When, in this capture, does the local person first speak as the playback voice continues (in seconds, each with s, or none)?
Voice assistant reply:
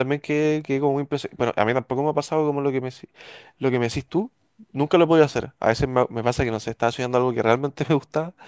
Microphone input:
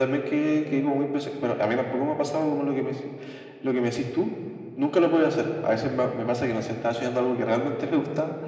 none